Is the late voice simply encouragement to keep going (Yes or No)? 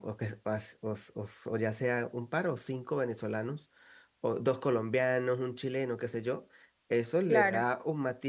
Yes